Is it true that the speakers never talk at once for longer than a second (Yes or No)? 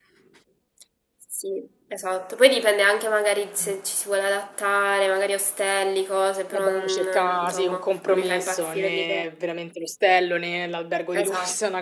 No